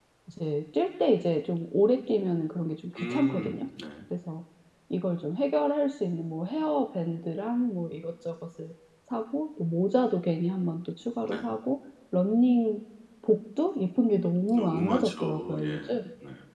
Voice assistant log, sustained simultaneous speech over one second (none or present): present